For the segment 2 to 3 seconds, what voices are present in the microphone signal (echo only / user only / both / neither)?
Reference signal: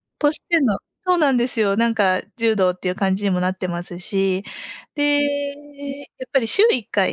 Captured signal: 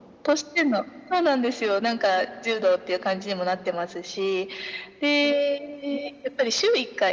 echo only